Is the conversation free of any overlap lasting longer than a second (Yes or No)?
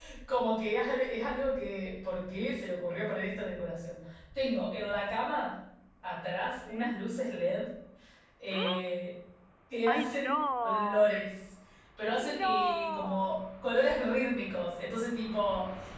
No